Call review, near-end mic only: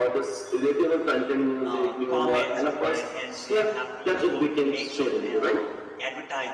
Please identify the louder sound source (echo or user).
echo